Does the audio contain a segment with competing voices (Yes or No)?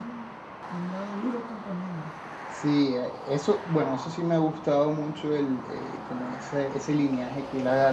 No